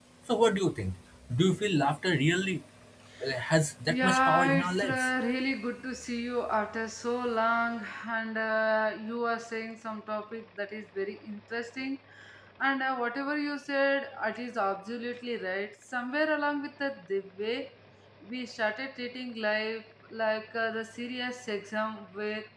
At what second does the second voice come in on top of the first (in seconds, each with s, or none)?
3.9 s